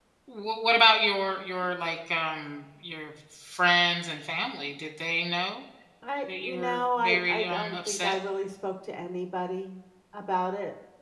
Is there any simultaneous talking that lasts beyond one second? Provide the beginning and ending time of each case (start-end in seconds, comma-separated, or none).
6.4-8.2